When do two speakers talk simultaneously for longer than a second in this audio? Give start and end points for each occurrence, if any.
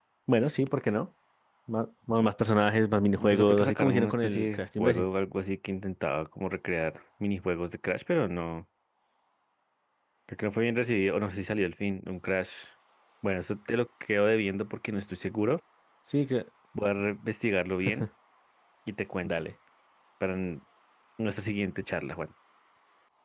3.2-5.1

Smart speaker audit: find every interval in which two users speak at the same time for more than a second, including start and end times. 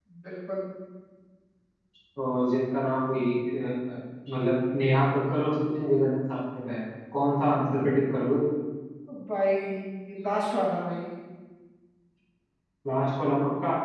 none

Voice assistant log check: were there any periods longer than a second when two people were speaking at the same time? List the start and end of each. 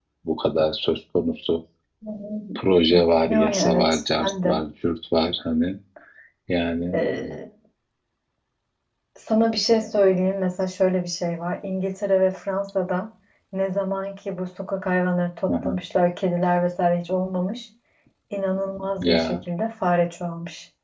3.3-4.6

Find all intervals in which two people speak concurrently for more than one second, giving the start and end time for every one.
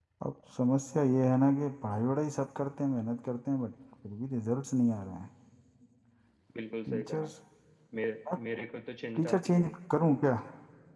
none

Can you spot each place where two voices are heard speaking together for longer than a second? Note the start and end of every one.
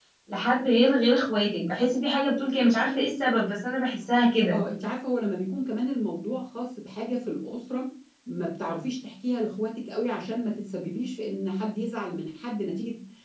none

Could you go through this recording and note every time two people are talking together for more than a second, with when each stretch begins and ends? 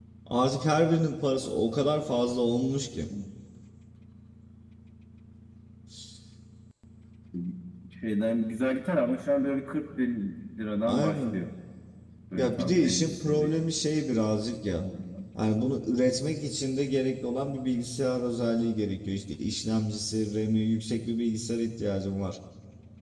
12.3-13.6

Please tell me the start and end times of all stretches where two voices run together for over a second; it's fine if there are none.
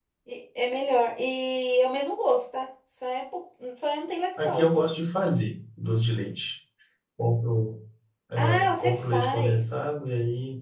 8.4-9.6

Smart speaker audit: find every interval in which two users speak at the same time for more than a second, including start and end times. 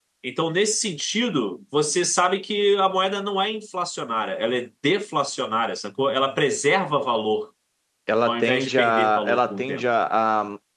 8.2-9.8

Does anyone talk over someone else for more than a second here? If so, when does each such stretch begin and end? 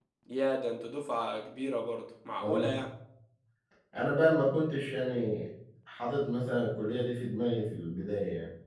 none

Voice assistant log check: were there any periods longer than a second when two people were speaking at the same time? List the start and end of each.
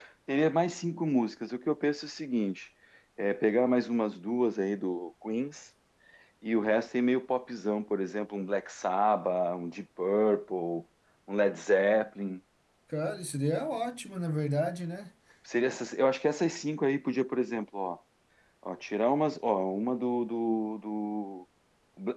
none

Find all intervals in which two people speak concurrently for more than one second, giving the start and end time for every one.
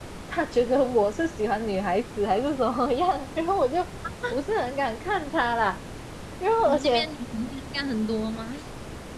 none

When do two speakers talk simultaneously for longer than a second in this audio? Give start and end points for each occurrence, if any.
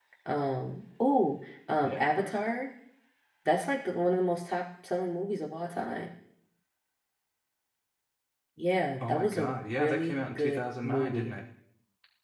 9.0-11.3

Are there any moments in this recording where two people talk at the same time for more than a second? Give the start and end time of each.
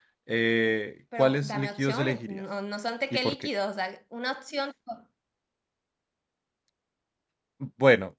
1.2-2.4

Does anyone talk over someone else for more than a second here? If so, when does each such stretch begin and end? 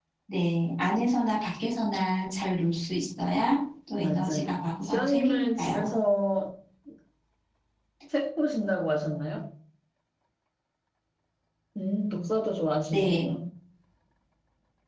4.0-5.9

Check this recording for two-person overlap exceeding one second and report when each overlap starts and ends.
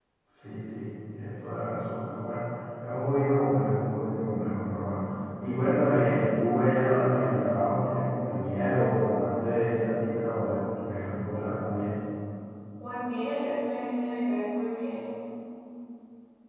none

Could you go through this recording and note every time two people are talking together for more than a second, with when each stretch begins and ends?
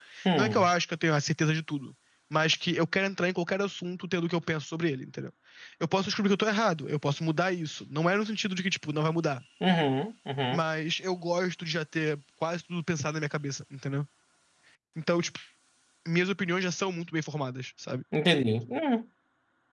none

